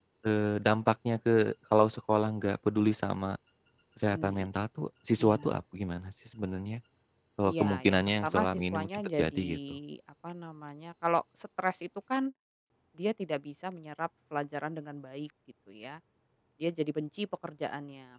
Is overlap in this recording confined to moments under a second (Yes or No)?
No